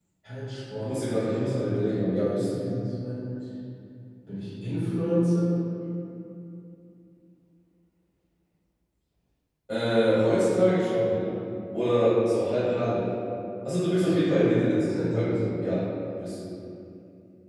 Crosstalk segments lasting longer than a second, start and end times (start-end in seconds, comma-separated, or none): 0.7-2.6, 14.0-15.3